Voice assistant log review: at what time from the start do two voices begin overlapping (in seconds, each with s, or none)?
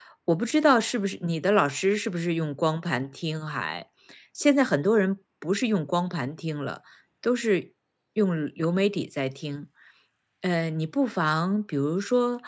none